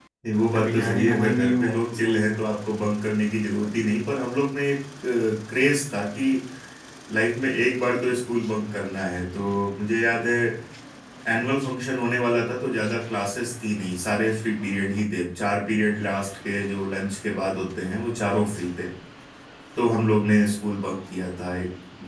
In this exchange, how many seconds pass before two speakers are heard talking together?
0.5 s

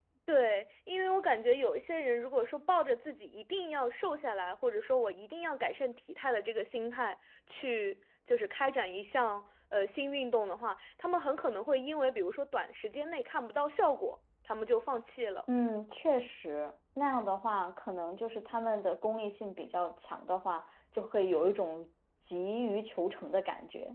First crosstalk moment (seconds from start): none

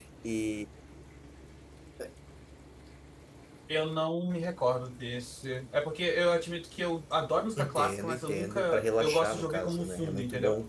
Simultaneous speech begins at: 7.6 s

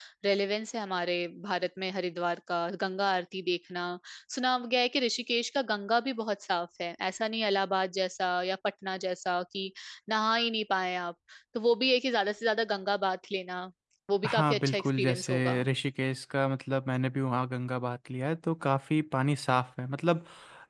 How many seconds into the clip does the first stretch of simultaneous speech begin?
14.3 s

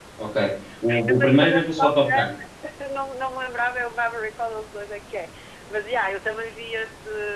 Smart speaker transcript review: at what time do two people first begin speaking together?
0.9 s

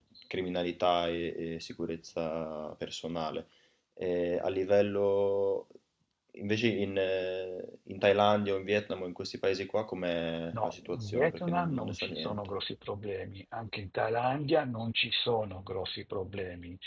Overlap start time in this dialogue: 10.5 s

